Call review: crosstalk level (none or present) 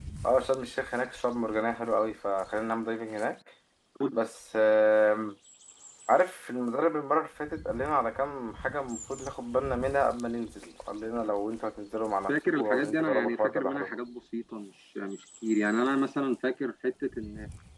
present